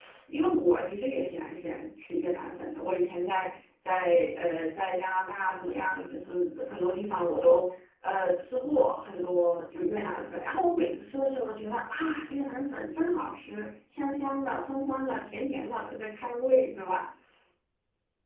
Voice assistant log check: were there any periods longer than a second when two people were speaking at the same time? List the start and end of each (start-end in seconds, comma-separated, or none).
none